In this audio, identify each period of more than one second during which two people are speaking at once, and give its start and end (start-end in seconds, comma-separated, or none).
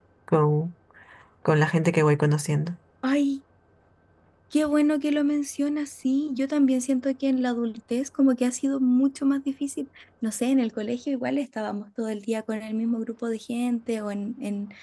none